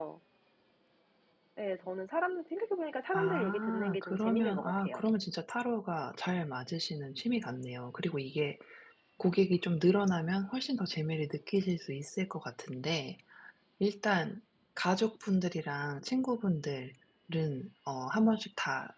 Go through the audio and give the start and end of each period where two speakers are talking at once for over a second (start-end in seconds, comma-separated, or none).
3.1-5.0